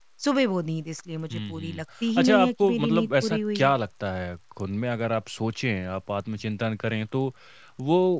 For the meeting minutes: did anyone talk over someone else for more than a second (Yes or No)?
Yes